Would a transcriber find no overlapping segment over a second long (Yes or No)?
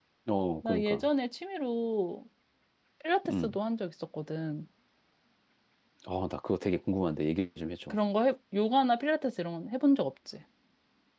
Yes